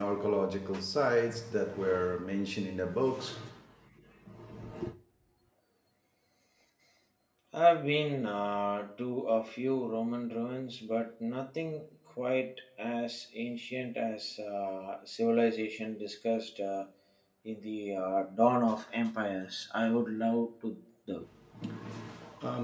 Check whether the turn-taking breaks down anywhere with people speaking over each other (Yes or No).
No